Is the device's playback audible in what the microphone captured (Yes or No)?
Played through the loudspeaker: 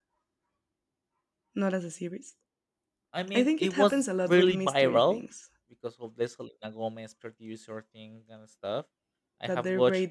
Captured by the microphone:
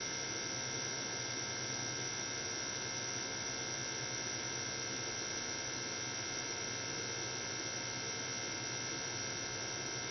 No